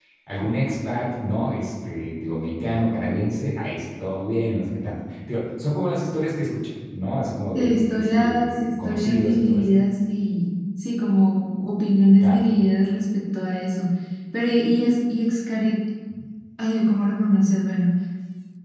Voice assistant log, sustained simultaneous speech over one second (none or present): present